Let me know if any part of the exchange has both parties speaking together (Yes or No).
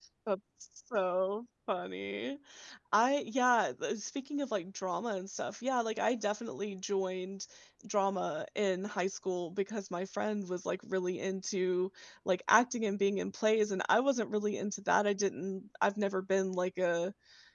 No